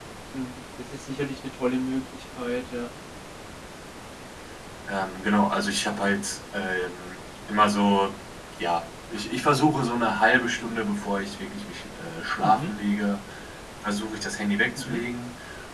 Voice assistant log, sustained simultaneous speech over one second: none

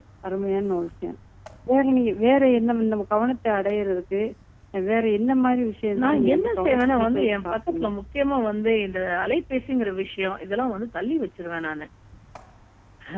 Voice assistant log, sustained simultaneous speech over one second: present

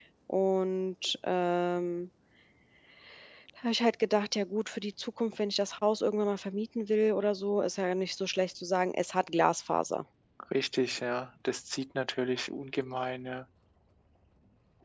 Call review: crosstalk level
none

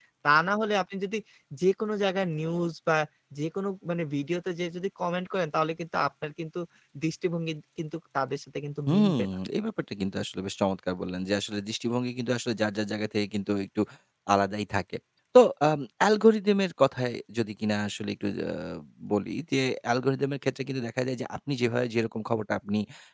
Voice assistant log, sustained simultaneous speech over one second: none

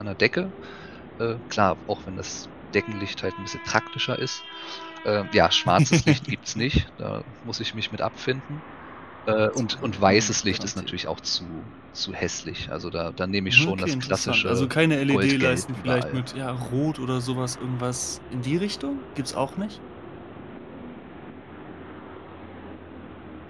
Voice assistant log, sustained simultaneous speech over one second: present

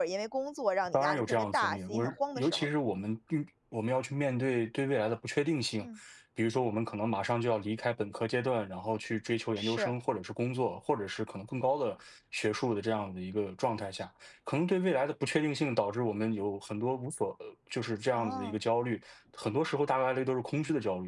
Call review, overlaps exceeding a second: present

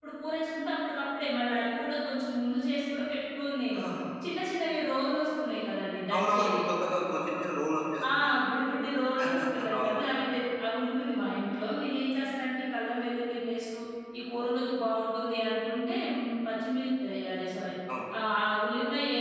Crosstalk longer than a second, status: none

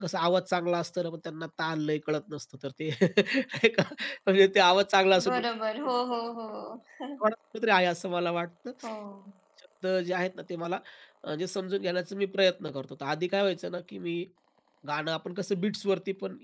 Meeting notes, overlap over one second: none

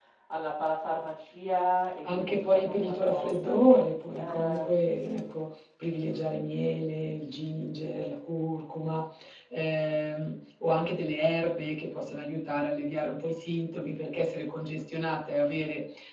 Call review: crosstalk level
present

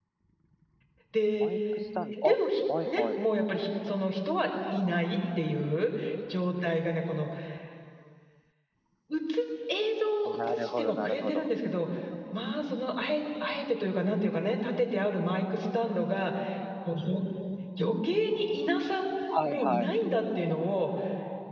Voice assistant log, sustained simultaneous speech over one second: present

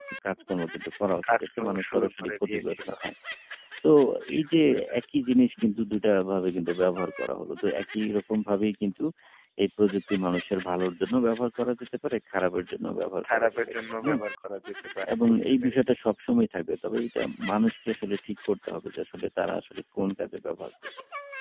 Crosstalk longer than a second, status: present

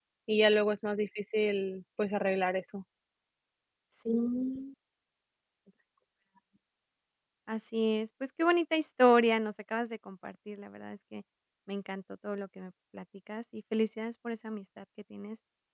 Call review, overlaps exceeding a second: none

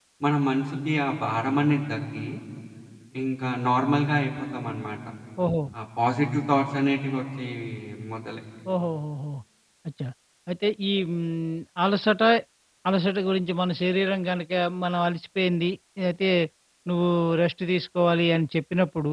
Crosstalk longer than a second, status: none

